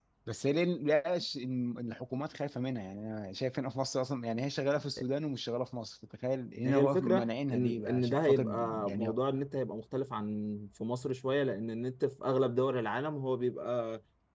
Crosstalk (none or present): present